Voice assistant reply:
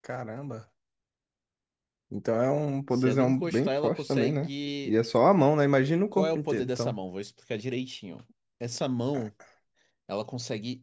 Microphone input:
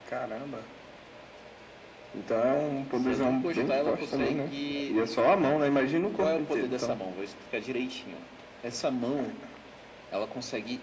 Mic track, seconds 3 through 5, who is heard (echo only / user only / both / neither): echo only